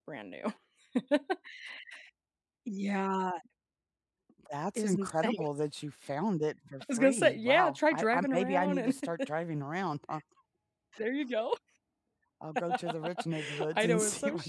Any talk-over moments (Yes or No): Yes